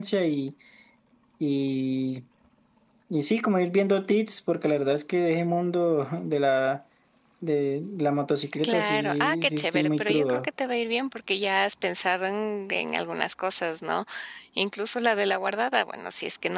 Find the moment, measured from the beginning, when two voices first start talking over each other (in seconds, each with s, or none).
8.6 s